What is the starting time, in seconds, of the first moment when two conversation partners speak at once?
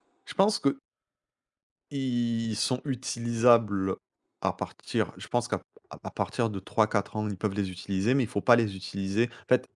none

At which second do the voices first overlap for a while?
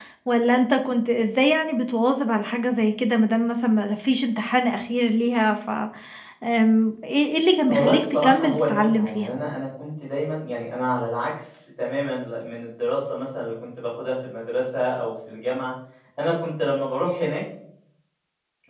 7.7 s

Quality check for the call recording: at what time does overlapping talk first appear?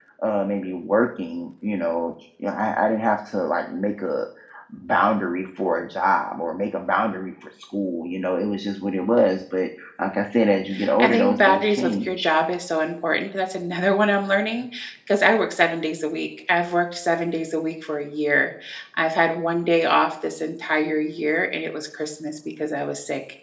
11.0 s

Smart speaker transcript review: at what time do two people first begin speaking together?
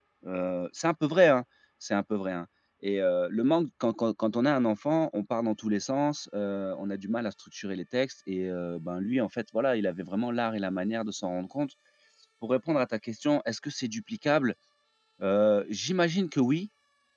none

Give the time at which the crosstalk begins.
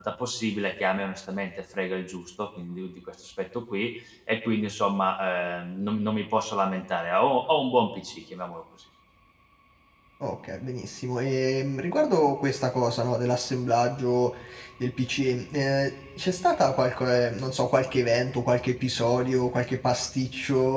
none

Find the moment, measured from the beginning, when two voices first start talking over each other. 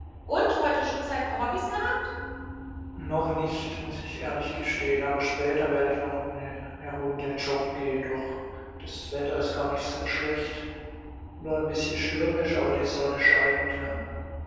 none

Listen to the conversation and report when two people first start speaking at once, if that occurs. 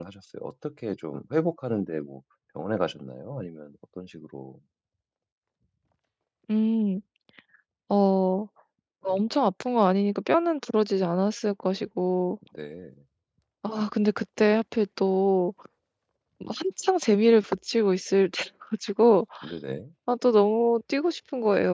none

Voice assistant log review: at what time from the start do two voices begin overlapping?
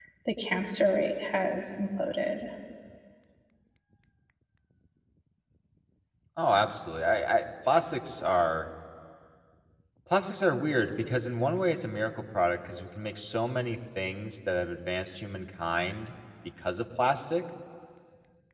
none

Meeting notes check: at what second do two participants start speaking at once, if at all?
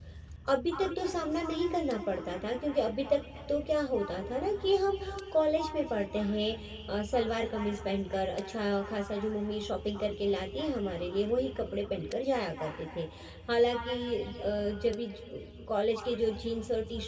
none

